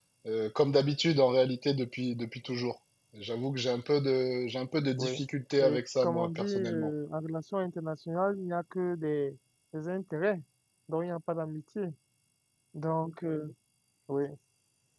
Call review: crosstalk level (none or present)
present